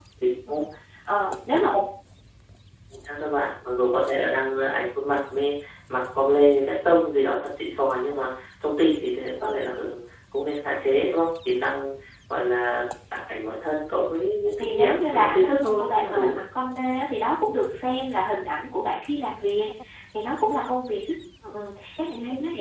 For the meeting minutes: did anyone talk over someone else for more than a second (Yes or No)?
Yes